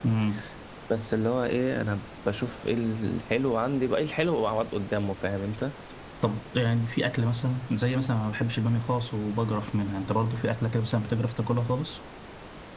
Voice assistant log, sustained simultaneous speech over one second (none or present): none